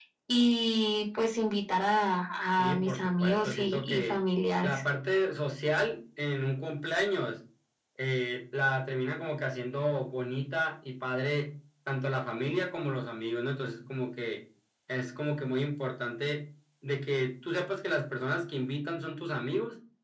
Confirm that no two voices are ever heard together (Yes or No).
No